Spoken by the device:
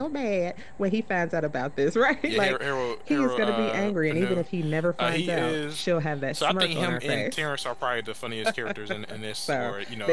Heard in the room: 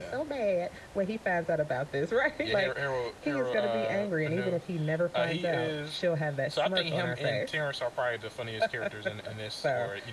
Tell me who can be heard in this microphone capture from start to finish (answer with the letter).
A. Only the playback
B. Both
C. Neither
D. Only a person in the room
A